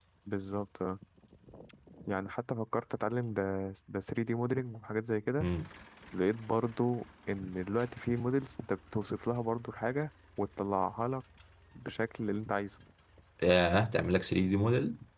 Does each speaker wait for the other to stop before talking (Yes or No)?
Yes